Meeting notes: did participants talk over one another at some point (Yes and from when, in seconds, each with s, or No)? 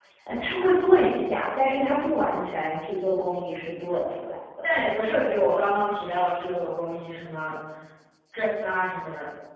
No